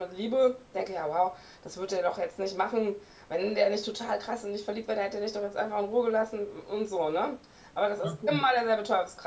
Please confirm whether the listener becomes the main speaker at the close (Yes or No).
No